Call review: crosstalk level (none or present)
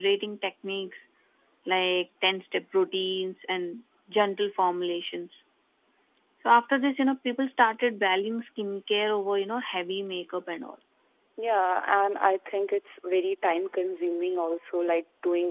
none